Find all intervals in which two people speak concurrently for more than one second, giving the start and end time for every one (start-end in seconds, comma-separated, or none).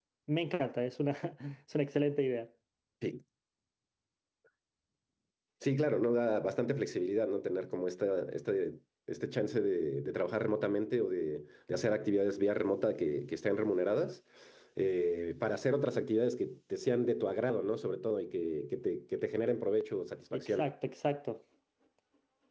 none